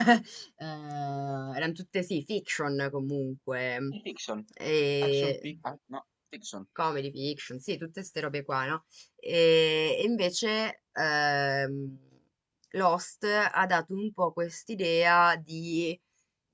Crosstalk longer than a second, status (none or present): none